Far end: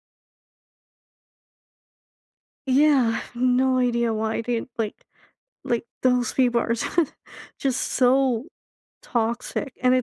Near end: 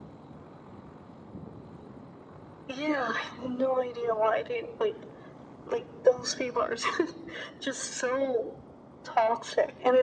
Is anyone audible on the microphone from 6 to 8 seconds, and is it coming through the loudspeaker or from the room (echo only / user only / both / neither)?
echo only